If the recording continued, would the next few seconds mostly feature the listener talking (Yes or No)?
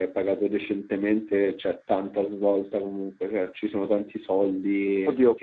Yes